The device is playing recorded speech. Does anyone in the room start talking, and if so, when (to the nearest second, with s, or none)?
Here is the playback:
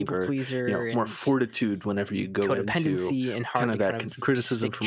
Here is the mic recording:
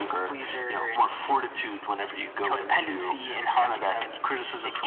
none